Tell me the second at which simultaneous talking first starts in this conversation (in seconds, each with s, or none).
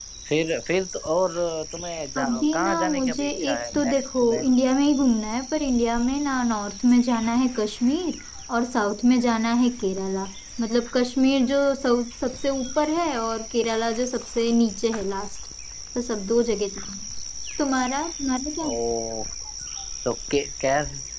2.2 s